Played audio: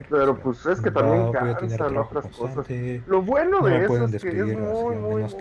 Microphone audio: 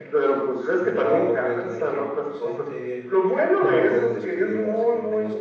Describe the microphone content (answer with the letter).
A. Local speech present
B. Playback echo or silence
B